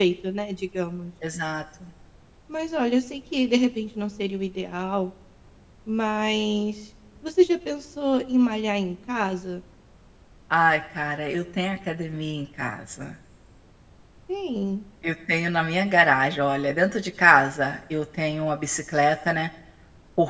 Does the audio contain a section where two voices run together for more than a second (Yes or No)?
No